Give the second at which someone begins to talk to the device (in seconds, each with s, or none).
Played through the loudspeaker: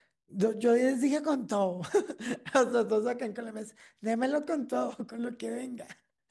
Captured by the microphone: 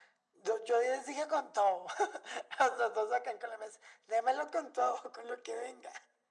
none